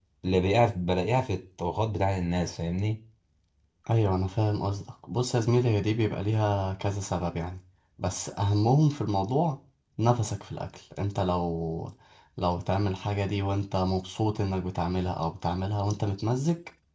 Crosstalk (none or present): none